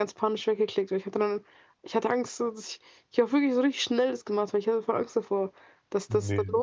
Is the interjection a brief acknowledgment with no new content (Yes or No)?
Yes